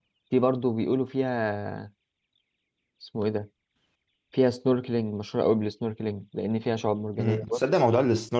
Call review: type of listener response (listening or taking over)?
taking over